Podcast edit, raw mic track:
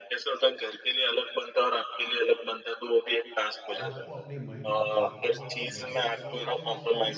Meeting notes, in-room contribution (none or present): present